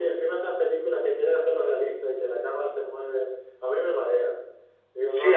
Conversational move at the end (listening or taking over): taking over